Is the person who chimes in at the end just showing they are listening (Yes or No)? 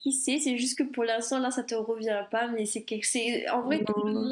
Yes